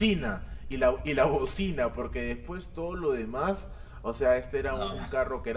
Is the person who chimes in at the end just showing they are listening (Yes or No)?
Yes